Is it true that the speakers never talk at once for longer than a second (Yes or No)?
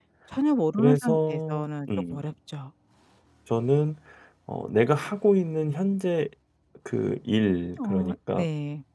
No